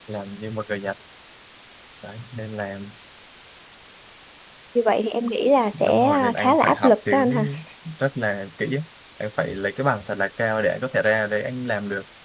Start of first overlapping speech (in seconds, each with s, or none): 5.7 s